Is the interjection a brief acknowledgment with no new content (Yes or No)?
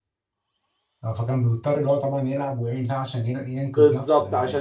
No